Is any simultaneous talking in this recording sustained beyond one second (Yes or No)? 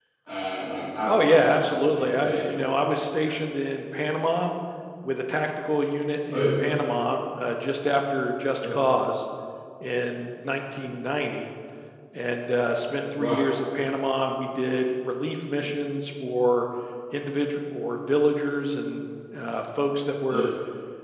Yes